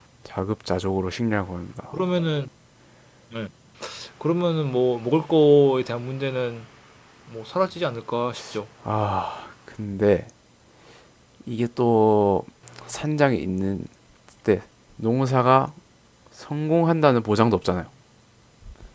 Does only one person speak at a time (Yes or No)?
Yes